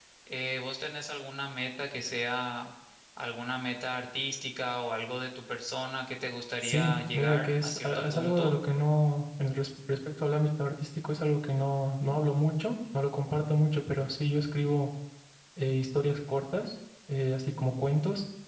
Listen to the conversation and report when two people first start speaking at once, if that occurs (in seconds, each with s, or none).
6.6 s